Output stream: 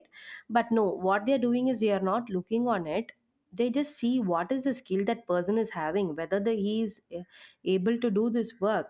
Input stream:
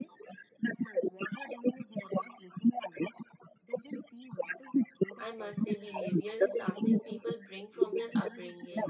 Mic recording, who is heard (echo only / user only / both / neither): both